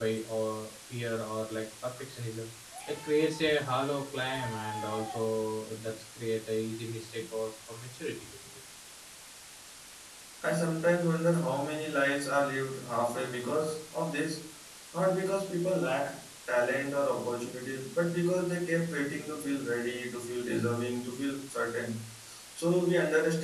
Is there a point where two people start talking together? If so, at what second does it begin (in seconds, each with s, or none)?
none